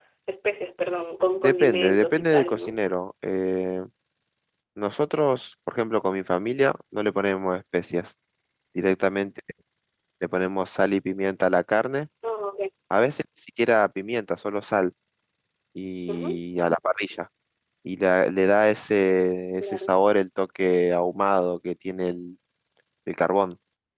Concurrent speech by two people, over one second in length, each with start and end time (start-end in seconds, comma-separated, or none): 1.4-2.8